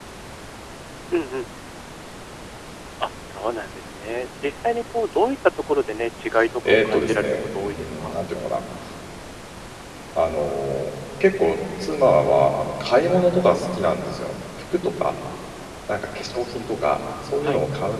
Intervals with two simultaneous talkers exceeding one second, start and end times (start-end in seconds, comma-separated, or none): 6.7-8.2